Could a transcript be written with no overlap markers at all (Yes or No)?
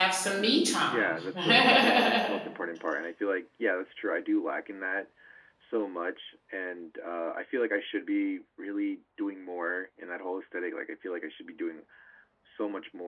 No